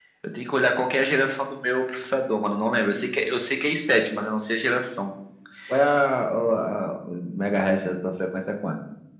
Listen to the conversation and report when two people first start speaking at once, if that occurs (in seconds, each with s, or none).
none